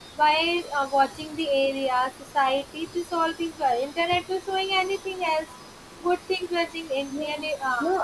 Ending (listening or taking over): taking over